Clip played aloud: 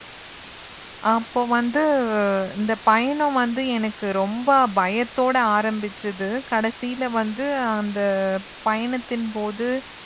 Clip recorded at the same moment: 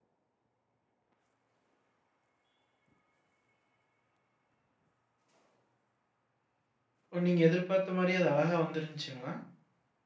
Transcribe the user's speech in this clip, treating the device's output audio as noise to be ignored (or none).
ஓ! நீங்க எதிர்பார்த்த மாரி அது அழகா வந்துருந்துச்சுங்களா?